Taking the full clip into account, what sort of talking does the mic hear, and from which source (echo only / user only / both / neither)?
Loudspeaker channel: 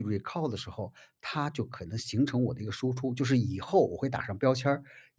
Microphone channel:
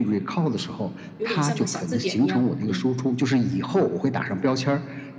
both